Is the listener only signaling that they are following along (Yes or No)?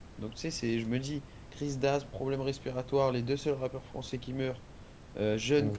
Yes